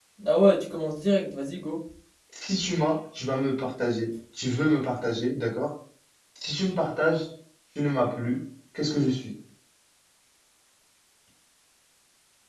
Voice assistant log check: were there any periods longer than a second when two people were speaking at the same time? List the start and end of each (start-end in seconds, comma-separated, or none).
none